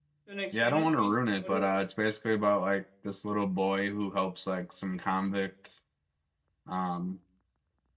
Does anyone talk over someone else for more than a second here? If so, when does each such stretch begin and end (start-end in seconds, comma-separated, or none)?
0.5-1.8